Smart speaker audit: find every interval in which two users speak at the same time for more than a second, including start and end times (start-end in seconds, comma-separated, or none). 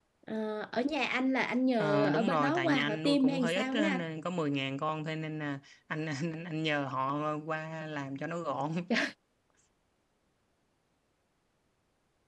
1.8-4.0